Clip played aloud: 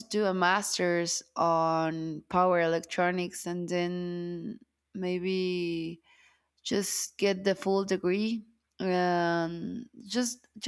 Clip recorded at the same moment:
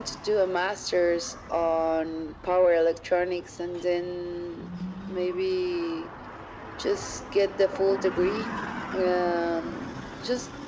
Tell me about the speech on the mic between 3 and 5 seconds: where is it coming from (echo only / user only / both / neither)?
echo only